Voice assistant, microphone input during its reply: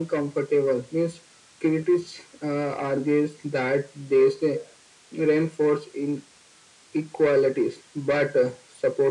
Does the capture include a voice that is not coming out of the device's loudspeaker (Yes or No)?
No